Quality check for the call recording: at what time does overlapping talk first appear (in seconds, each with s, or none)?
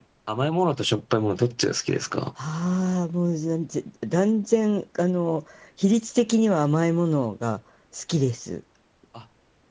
none